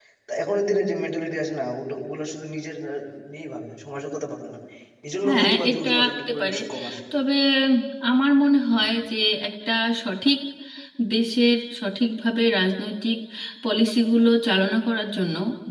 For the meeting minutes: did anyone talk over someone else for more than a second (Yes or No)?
Yes